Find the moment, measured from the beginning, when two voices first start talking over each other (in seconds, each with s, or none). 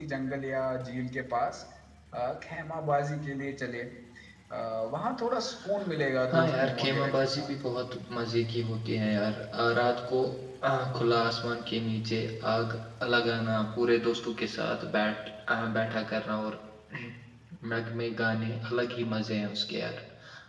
6.3 s